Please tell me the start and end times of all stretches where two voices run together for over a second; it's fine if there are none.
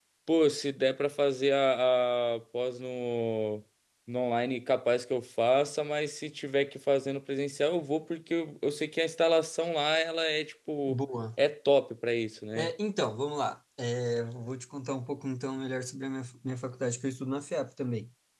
none

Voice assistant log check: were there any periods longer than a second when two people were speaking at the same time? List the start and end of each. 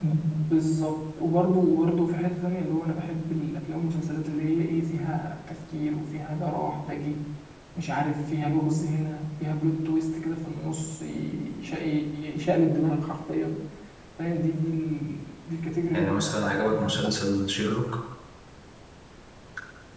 15.9-17.1

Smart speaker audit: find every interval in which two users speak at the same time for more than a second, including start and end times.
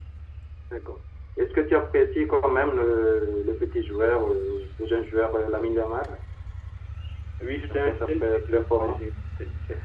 7.7-9.0

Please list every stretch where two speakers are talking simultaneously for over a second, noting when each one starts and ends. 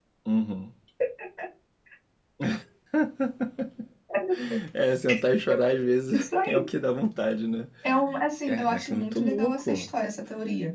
8.5-9.9

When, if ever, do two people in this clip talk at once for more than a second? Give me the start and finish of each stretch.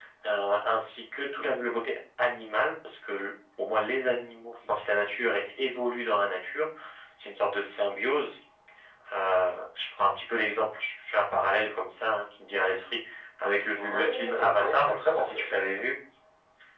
13.7-15.8

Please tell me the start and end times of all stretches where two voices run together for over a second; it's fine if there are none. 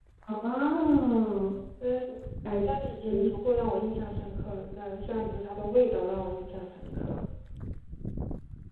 none

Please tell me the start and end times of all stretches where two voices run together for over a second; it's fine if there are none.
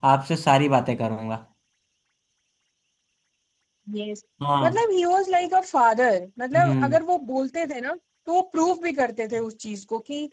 none

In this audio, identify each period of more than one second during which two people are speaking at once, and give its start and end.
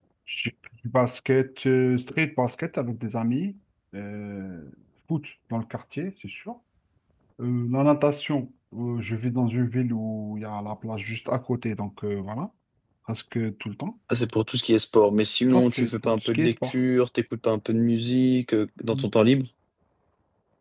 15.5-16.7

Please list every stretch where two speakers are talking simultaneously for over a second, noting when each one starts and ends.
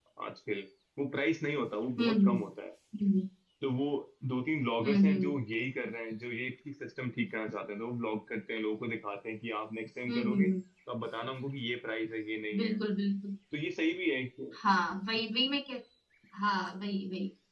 none

